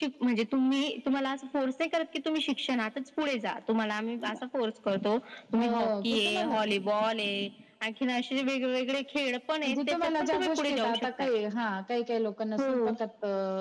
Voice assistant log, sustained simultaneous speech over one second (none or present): present